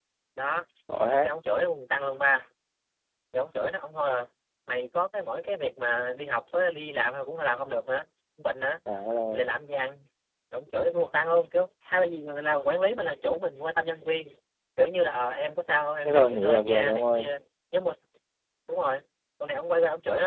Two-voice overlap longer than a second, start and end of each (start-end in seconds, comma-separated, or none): 16.0-17.3